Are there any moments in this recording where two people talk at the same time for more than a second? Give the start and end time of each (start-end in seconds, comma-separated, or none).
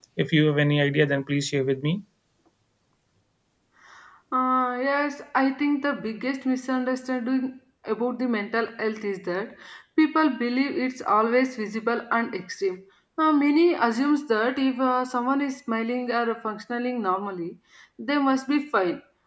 none